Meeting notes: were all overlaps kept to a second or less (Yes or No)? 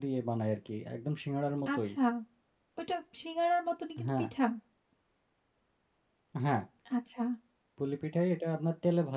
Yes